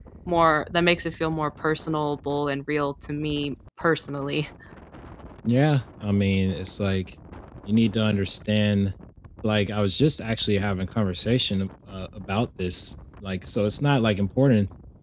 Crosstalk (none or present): none